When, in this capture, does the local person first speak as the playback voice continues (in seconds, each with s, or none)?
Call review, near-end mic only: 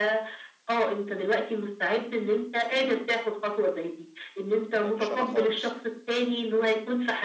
4.8 s